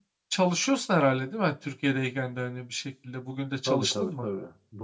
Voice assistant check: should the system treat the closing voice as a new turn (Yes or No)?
Yes